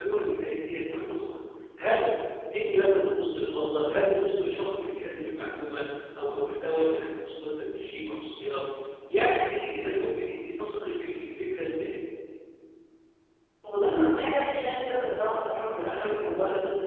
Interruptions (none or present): none